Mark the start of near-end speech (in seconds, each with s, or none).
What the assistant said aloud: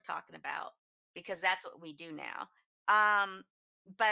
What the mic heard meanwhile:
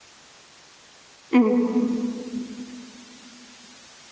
1.3 s